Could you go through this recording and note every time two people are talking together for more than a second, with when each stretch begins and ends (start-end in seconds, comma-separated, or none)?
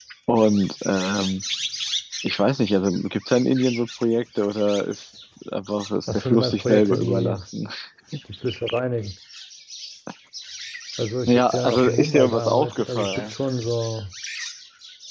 6.1-7.4, 11.3-13.3